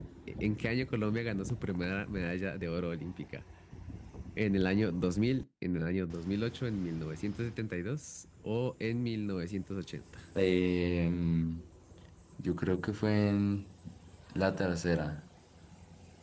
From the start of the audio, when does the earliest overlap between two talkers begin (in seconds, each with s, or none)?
none